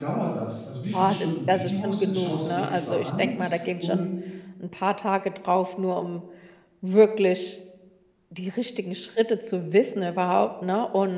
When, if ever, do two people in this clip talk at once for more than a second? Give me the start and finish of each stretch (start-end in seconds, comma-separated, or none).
0.9-3.3